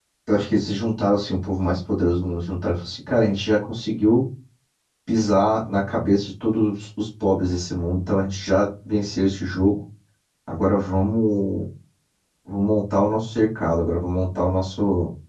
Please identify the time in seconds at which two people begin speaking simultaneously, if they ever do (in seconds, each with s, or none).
none